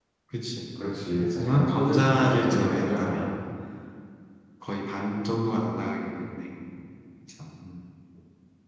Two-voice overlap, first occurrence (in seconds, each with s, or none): 1.2 s